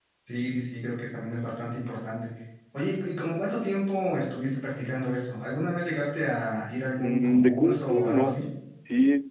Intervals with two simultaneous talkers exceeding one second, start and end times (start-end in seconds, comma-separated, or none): 6.9-8.4